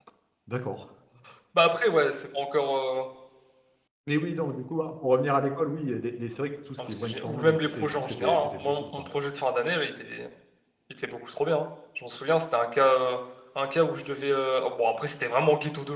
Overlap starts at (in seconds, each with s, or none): 6.8 s